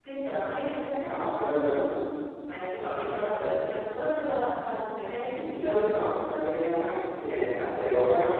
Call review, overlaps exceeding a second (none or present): none